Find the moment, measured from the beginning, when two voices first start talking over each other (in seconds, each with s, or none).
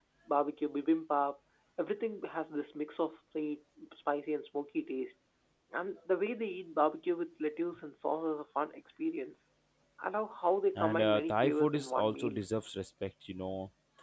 10.8 s